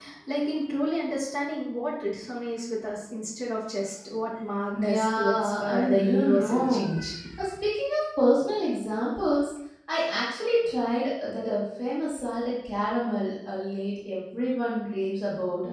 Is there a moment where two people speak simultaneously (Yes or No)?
Yes